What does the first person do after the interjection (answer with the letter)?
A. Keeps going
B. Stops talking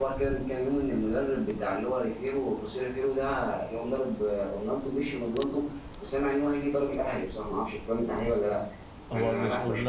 B